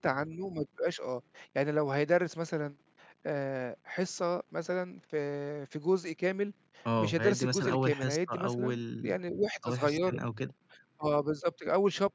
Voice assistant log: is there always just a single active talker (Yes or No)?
No